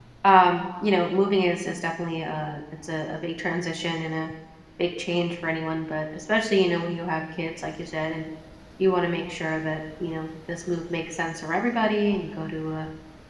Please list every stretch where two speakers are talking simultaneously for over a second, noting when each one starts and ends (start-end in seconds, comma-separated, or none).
none